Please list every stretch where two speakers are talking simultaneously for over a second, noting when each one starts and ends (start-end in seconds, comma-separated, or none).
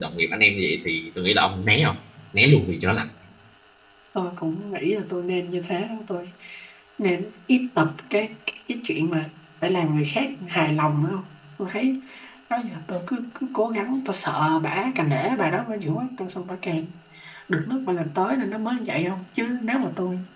none